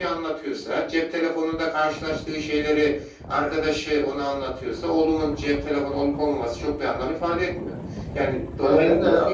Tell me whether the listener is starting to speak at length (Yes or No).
Yes